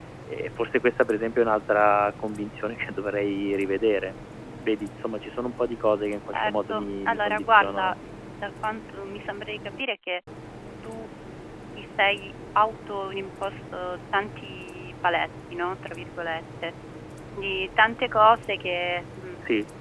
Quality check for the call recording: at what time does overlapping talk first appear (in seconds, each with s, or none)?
6.3 s